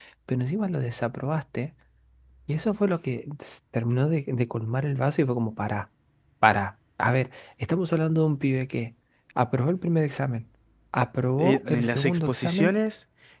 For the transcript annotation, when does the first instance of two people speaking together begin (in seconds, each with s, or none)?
11.4 s